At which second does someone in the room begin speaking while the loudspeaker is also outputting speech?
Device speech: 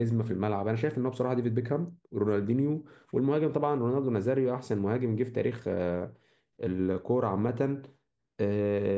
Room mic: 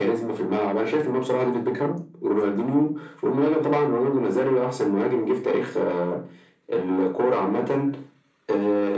none

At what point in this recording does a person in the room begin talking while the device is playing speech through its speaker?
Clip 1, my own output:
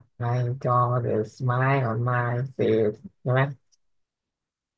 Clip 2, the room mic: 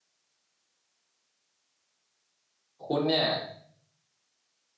3 s

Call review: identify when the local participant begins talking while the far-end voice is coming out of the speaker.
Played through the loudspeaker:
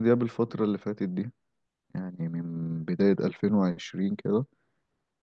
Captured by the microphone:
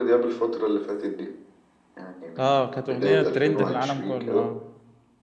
2 s

